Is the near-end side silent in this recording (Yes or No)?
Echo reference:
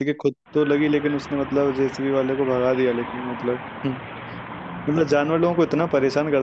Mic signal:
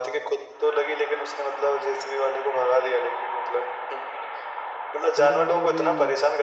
No